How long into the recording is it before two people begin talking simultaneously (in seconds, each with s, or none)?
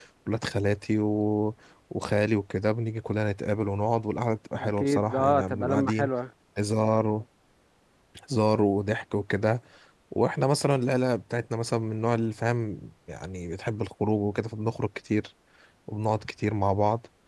4.6 s